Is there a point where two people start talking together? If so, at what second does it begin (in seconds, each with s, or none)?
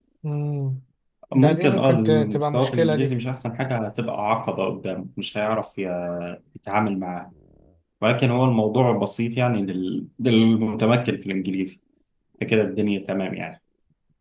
1.3 s